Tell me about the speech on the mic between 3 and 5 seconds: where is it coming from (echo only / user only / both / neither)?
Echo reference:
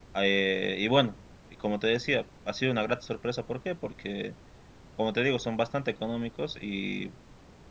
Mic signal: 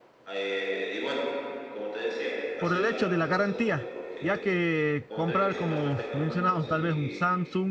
both